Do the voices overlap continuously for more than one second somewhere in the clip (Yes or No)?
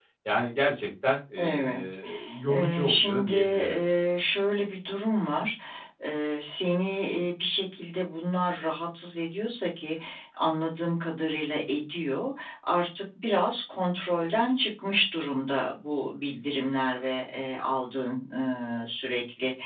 Yes